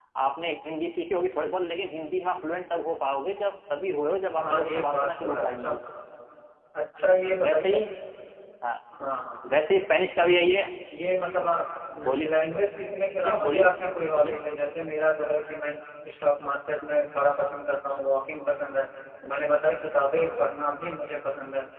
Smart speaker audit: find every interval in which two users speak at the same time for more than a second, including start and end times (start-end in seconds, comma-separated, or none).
4.4-5.8